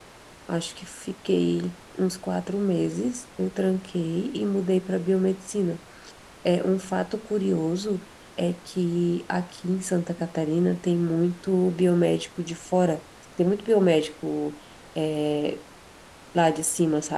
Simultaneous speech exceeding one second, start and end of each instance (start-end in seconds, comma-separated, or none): none